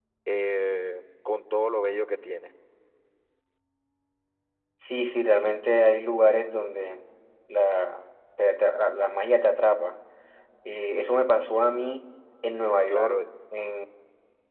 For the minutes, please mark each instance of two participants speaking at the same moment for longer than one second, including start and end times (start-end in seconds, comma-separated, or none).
none